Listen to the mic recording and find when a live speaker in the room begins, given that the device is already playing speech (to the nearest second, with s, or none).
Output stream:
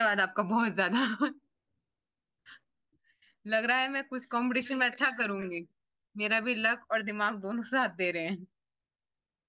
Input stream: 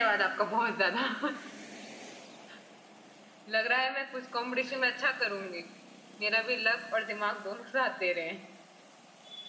none